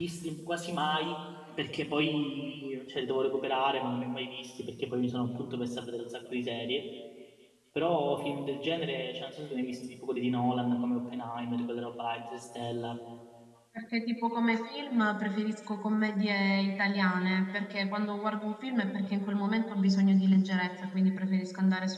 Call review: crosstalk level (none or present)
none